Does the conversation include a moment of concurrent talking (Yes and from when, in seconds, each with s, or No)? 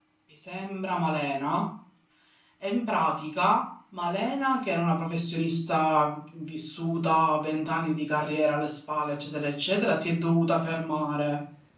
No